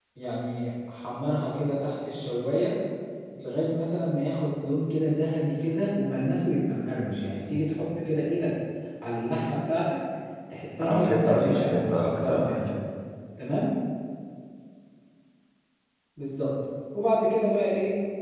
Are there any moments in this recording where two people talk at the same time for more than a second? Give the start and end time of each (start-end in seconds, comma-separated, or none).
10.8-12.7